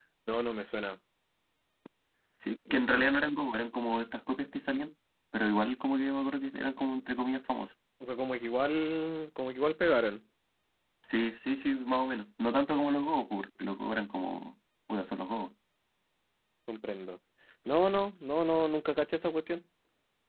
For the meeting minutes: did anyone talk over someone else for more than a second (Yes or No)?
No